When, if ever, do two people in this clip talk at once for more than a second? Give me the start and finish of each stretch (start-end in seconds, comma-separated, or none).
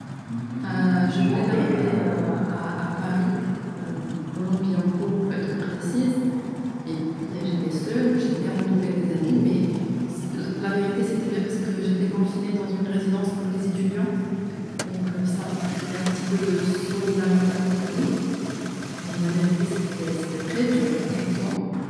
0.6-2.1